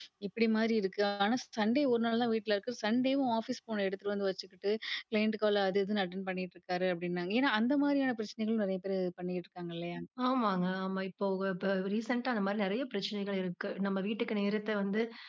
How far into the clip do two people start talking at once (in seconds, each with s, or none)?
none